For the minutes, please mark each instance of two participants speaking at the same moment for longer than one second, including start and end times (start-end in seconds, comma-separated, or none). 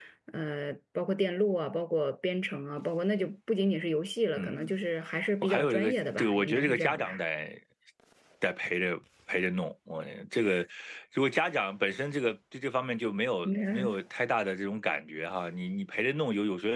5.4-7.2